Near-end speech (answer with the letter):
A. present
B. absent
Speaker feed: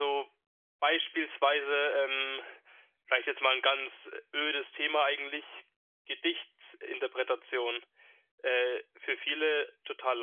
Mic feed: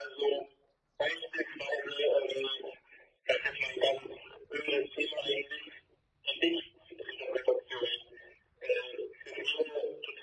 B